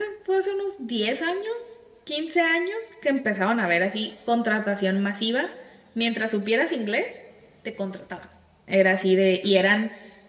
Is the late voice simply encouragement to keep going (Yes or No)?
Yes